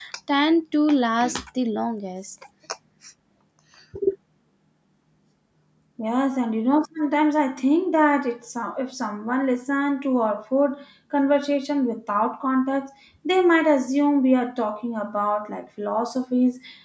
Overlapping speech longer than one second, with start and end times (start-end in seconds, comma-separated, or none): none